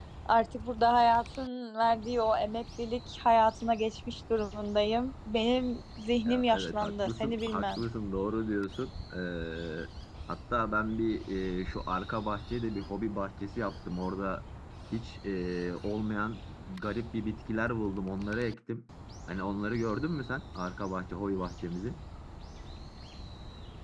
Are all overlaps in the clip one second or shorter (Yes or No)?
No